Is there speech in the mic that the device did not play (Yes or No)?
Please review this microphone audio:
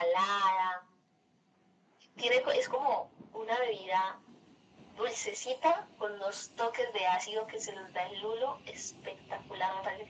No